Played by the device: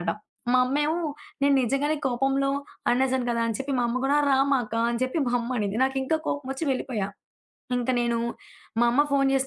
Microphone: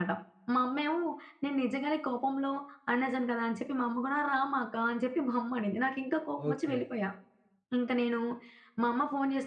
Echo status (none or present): present